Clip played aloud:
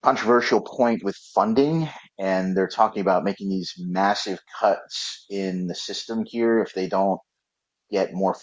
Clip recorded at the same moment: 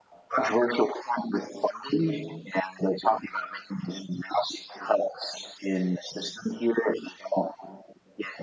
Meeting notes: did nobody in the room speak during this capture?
Yes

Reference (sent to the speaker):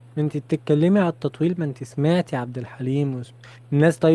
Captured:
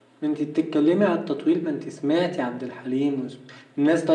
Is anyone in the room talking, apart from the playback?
No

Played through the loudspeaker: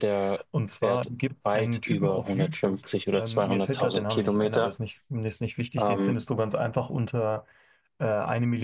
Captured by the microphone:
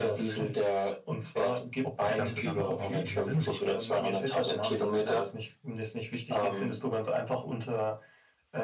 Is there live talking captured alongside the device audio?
Yes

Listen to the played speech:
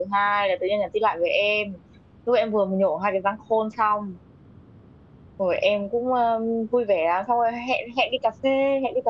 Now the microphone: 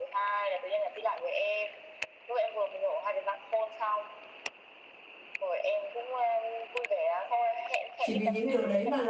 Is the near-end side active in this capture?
Yes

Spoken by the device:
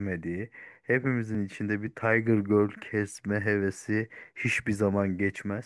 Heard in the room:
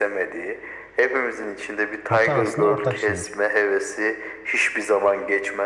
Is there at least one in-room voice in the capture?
Yes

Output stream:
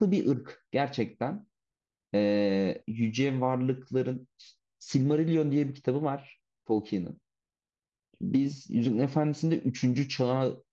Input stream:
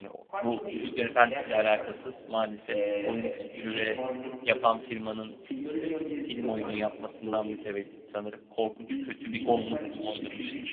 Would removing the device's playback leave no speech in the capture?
No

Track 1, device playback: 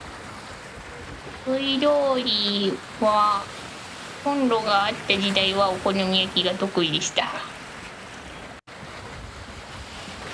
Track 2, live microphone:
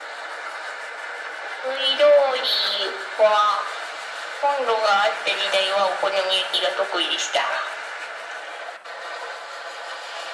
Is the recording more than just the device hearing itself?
No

